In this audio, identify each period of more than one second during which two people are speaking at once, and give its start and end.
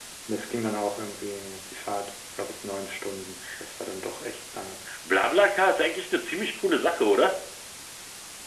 none

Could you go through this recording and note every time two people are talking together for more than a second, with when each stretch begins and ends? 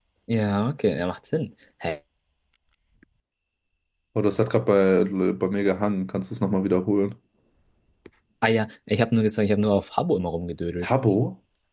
none

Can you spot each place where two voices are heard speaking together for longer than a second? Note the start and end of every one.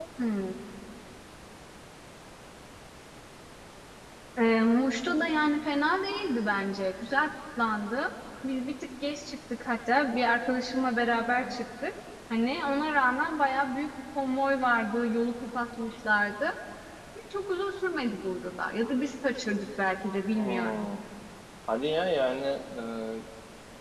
none

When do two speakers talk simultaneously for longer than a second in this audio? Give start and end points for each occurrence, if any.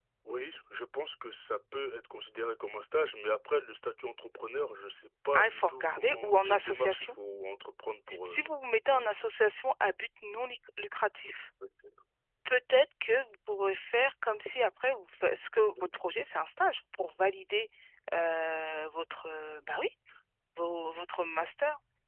5.3-7.2

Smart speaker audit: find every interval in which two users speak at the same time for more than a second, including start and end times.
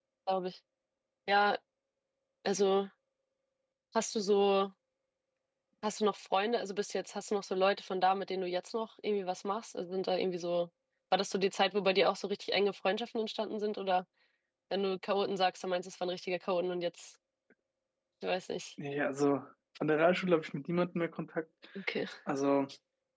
none

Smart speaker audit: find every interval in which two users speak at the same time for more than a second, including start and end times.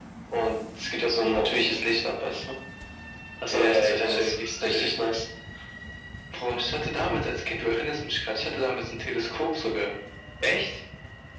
3.5-4.9

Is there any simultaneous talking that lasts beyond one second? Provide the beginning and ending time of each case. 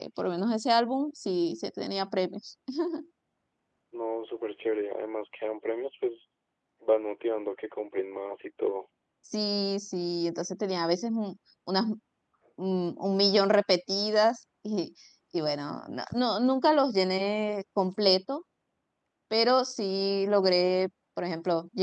none

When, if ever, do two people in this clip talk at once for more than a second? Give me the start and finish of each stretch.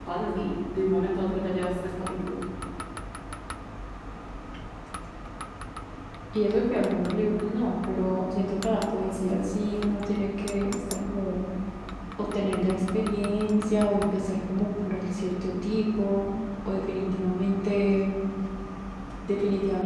none

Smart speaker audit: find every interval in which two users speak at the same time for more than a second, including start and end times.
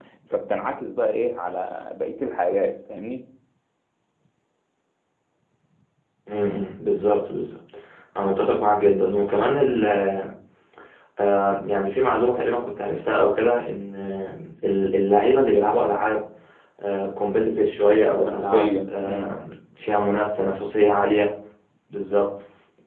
18.2-19.4

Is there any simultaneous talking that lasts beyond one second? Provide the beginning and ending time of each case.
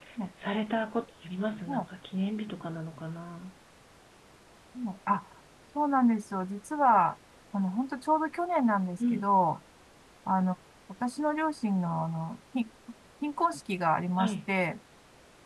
none

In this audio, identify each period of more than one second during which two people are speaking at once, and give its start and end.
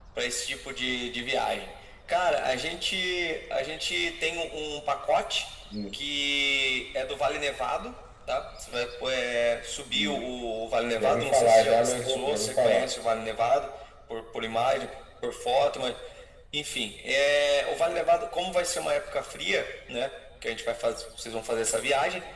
11.0-12.9

